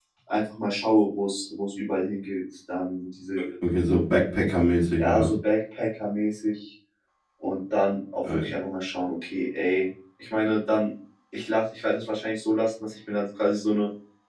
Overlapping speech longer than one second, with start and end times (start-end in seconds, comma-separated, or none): none